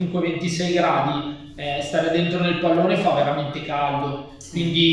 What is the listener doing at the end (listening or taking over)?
listening